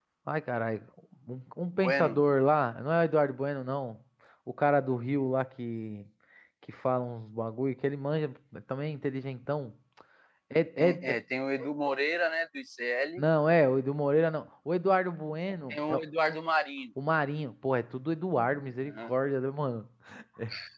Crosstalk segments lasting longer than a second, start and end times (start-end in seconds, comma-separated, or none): none